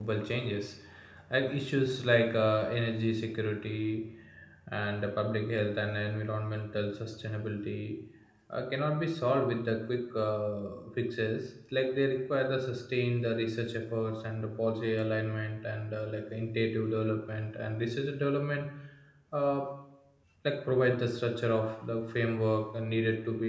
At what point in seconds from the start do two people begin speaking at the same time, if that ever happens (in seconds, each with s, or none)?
none